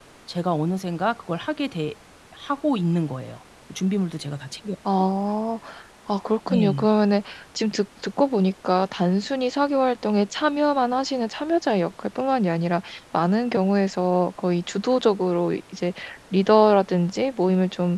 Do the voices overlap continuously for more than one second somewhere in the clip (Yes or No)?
No